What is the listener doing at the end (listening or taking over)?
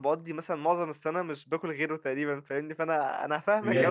taking over